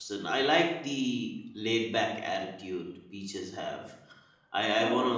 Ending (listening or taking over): listening